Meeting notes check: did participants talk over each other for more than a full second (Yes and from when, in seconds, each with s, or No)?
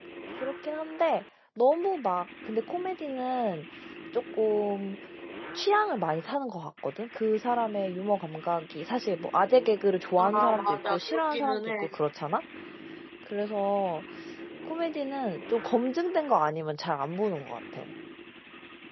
Yes, from 10.2 s